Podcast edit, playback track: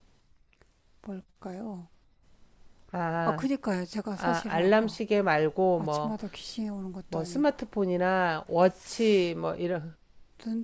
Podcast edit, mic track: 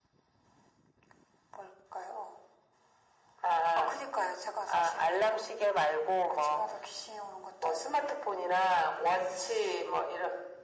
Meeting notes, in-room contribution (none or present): none